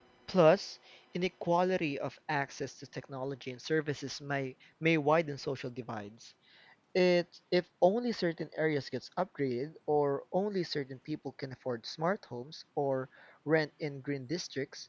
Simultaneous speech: No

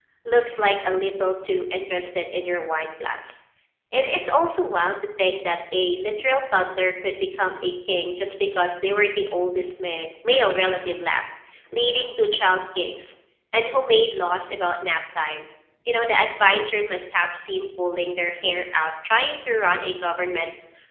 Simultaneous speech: No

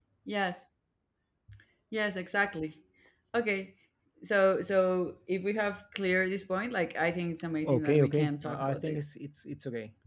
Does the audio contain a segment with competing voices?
Yes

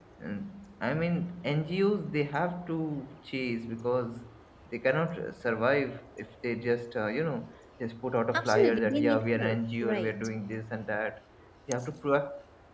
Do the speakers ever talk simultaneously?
Yes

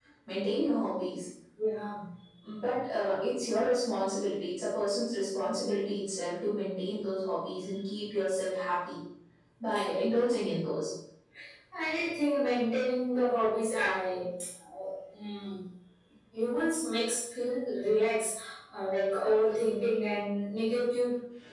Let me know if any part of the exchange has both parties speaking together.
No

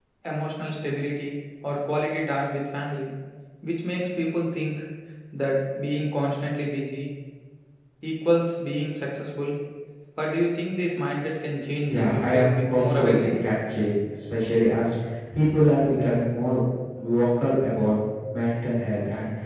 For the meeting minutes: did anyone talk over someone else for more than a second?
Yes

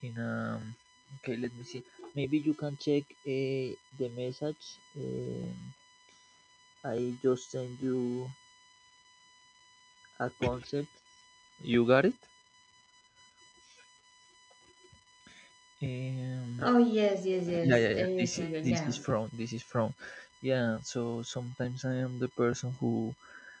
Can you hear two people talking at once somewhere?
Yes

